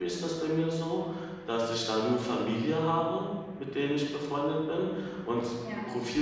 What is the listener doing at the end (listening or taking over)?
listening